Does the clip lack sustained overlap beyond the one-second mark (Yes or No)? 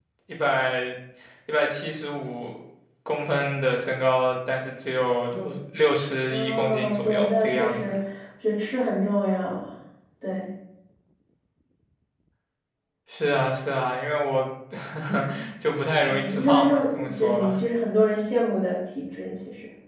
No